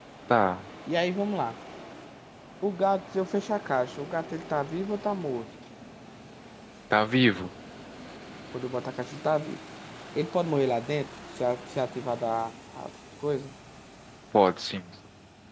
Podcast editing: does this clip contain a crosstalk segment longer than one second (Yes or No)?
No